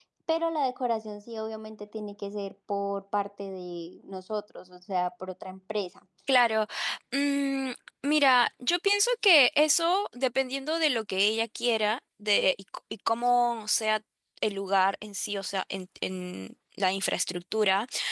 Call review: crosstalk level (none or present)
none